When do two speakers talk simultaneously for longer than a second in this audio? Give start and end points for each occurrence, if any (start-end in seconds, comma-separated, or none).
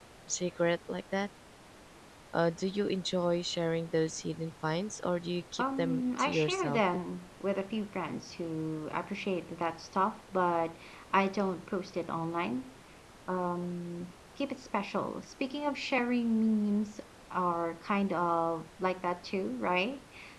5.6-6.8